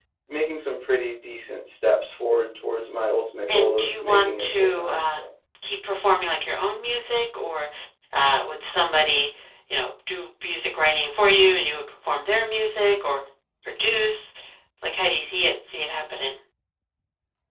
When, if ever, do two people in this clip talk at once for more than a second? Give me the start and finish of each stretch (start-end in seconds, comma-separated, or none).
3.5-5.2